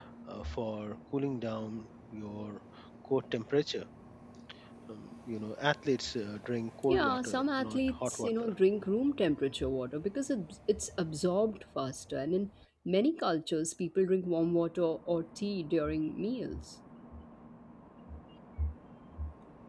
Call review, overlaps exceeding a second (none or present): present